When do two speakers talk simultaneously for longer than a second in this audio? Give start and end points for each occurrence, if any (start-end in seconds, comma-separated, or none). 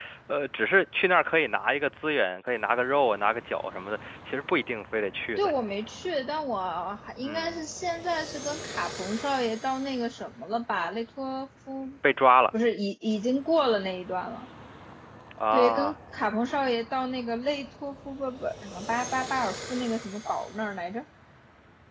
none